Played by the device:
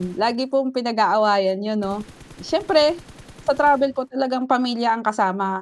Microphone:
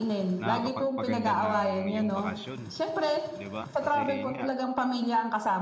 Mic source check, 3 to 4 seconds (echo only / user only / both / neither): both